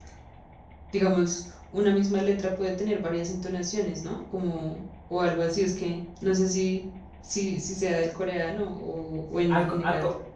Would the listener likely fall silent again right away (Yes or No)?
No